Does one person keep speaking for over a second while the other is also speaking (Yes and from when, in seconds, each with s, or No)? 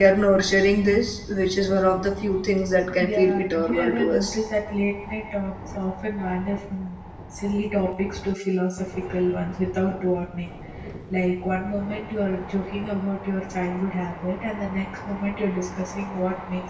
Yes, from 3.0 s